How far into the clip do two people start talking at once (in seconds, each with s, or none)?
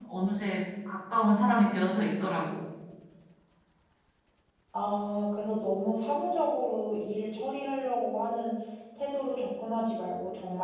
none